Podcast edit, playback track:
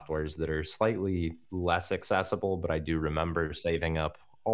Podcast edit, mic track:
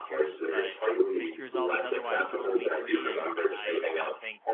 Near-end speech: present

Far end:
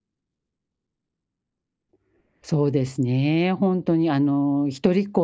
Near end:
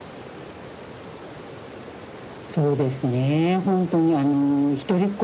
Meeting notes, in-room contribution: none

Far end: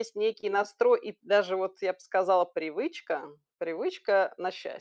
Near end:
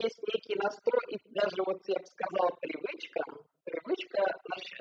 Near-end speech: none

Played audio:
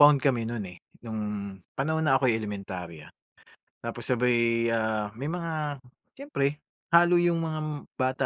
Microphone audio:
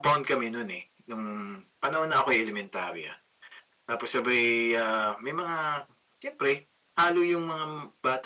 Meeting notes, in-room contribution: none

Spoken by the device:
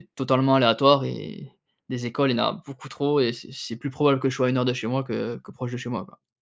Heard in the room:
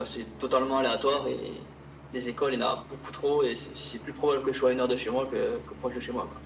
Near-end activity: none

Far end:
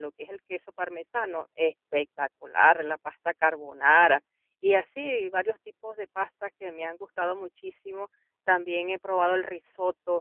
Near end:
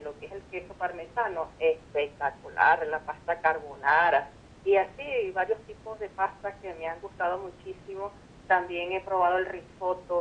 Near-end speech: none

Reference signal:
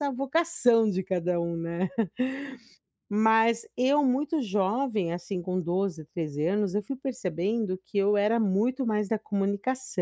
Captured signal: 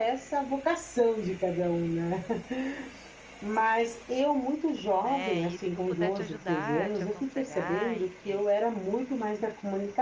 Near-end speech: present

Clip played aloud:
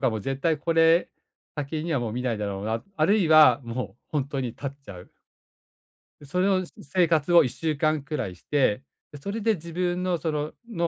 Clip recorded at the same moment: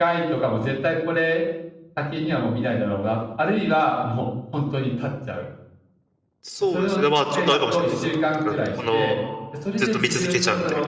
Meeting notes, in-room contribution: present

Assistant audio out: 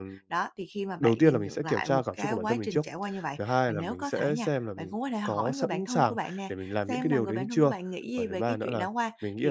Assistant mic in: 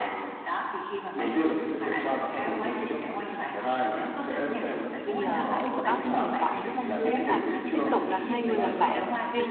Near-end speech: present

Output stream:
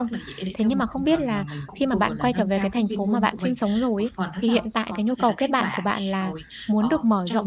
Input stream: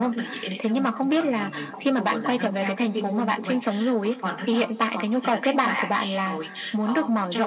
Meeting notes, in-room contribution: none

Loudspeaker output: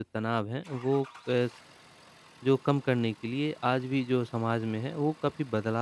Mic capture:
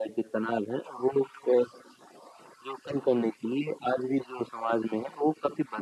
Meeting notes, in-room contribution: none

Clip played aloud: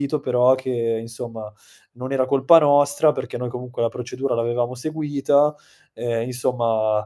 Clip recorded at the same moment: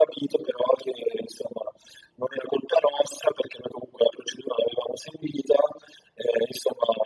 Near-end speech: none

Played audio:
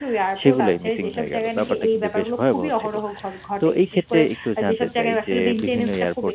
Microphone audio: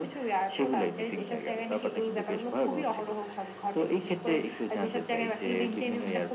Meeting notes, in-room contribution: none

